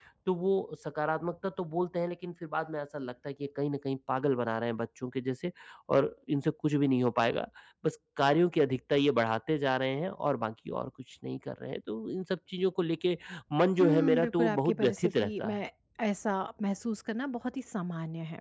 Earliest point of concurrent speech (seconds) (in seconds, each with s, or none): 13.8 s